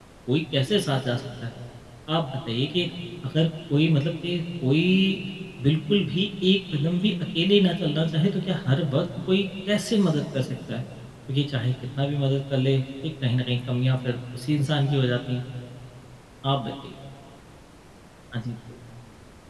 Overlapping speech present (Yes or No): No